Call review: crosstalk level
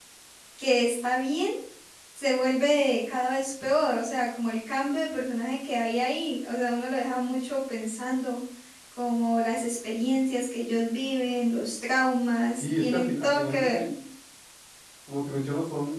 present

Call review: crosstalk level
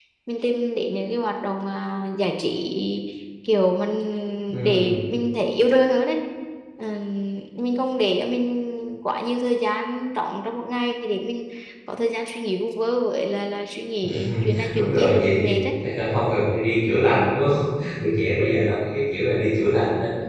present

